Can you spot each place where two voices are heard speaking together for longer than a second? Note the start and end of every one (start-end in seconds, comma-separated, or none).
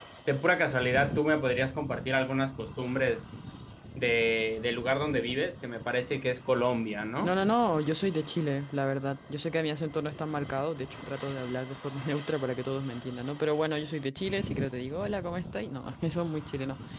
none